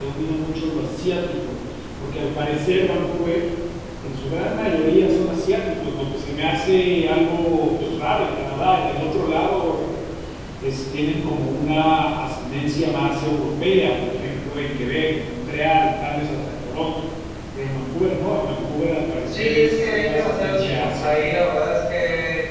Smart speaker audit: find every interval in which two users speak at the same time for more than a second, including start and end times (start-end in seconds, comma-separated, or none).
19.3-21.4